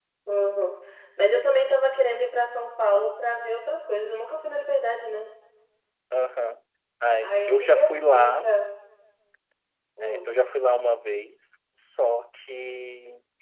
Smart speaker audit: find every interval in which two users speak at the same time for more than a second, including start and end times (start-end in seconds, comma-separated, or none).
7.2-8.5